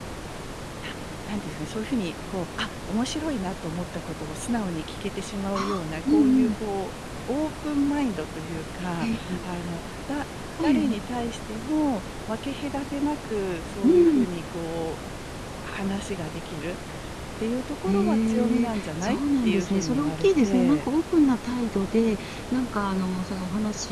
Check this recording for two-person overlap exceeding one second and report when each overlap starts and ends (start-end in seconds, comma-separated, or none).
17.9-20.8